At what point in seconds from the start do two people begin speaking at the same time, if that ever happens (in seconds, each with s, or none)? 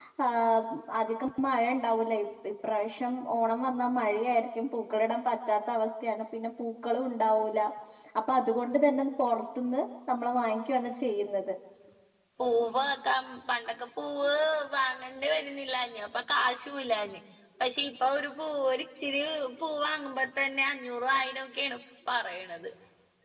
none